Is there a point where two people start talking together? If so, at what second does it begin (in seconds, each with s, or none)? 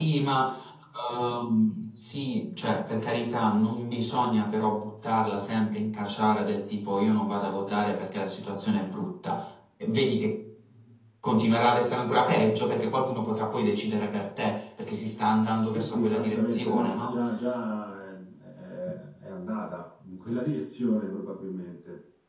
15.7 s